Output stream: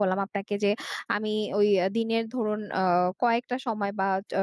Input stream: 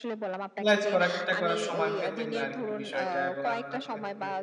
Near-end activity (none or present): present